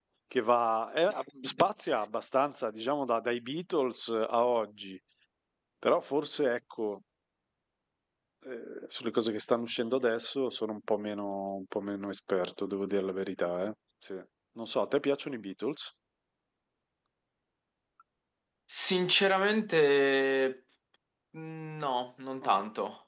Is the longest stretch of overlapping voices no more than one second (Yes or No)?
Yes